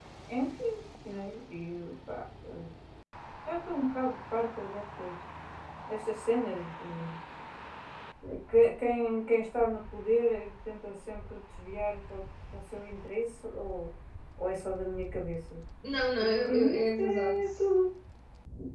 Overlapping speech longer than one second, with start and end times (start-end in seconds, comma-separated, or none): 16.2-17.4